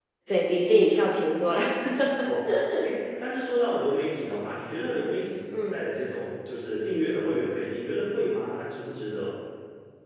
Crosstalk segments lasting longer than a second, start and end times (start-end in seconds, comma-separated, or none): none